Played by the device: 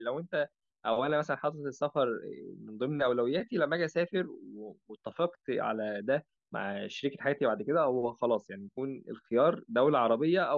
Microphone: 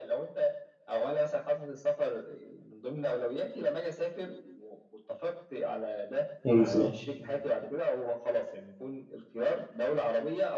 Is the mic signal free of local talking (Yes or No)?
No